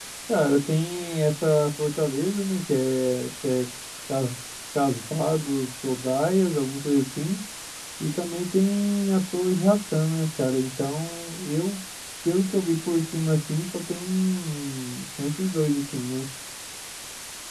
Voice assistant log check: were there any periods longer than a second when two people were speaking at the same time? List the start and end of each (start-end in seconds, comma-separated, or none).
none